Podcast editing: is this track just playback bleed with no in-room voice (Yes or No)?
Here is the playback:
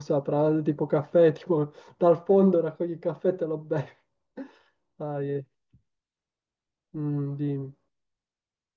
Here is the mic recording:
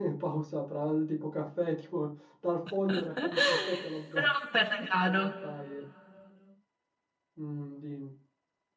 No